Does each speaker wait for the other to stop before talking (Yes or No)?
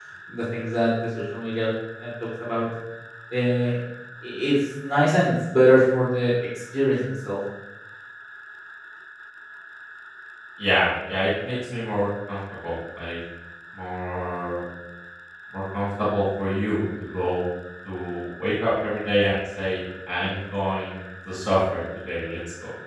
Yes